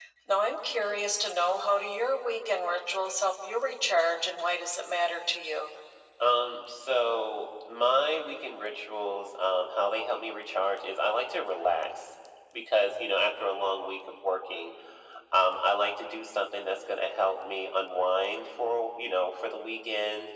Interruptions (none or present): none